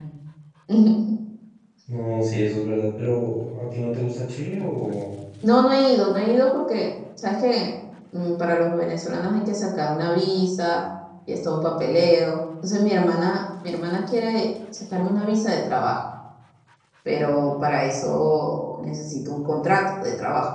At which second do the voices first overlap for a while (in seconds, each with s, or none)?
none